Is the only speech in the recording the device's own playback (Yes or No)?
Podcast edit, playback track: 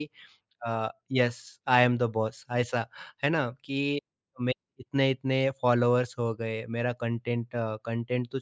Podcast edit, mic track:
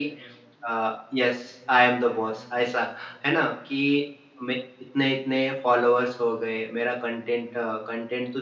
Yes